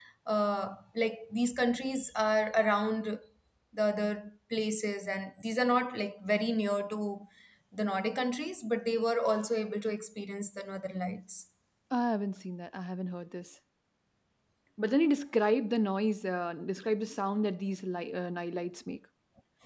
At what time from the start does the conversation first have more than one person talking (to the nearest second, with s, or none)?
none